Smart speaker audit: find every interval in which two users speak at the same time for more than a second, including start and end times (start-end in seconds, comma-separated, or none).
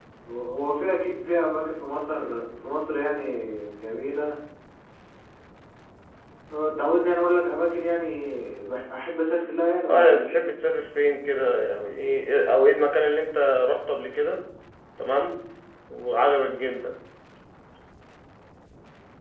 none